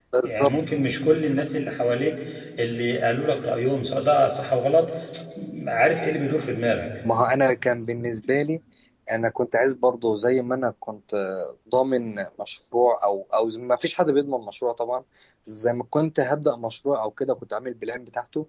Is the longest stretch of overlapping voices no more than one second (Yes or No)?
Yes